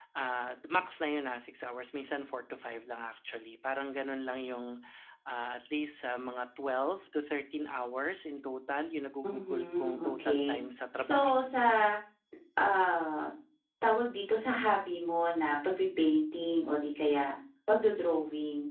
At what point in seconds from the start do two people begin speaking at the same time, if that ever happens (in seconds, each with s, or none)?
9.2 s